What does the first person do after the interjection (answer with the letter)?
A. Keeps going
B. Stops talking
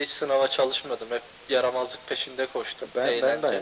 B